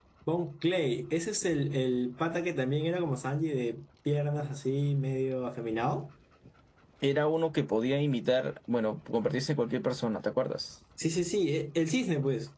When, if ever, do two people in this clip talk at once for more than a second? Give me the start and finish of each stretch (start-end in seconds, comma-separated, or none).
none